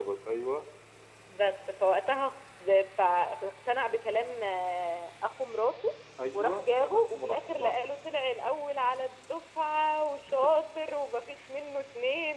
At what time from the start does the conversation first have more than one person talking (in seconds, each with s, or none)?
6.3 s